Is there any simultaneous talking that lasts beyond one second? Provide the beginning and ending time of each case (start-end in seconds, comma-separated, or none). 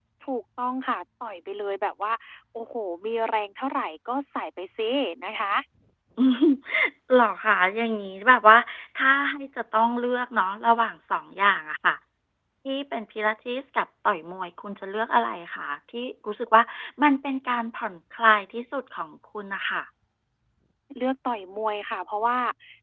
none